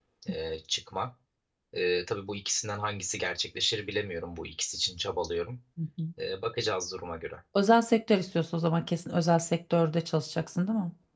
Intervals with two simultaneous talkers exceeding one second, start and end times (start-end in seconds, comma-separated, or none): none